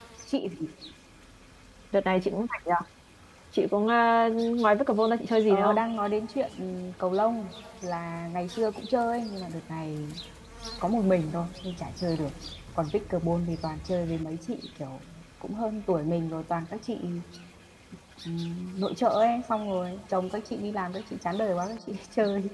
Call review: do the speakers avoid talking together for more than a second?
Yes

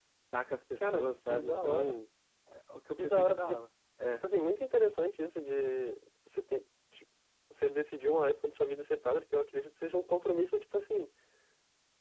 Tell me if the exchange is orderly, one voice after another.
No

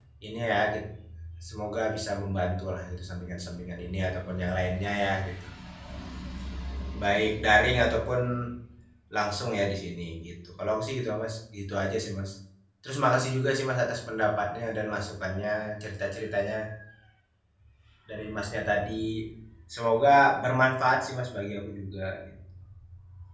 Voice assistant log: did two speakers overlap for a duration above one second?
No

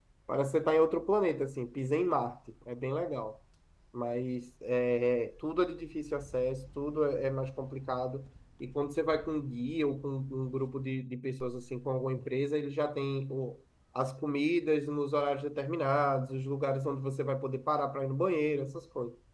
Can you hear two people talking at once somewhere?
No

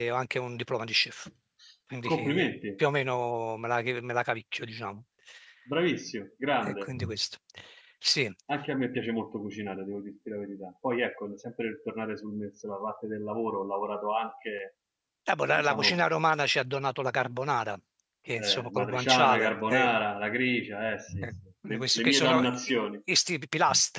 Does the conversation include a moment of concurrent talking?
Yes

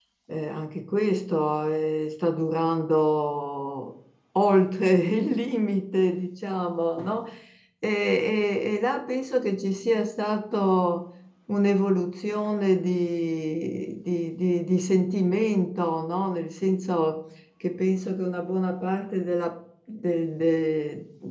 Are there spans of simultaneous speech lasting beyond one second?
No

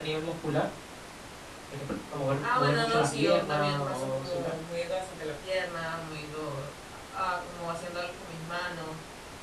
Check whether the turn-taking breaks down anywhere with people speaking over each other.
Yes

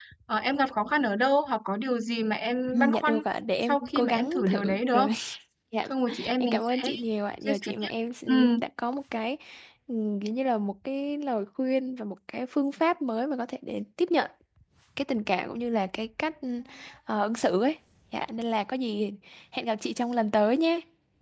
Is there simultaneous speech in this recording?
Yes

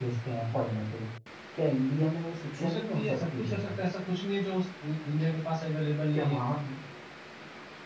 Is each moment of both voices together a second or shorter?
No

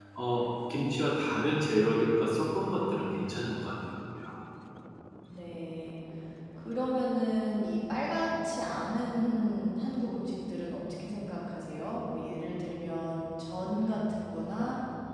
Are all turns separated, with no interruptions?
Yes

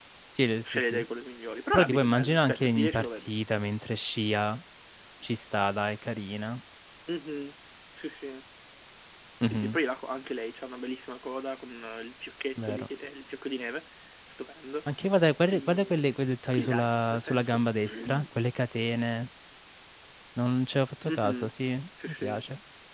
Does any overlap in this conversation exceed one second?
Yes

